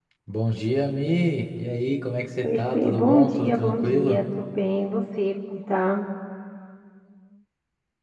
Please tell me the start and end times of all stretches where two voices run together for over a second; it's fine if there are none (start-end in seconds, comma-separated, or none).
2.4-4.2